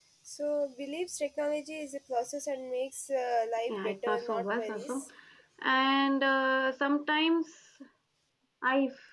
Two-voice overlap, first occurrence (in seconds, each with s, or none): 3.7 s